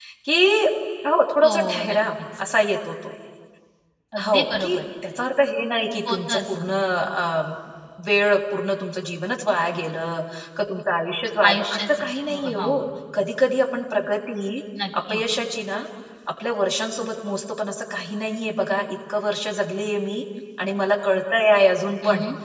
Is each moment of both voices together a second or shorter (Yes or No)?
No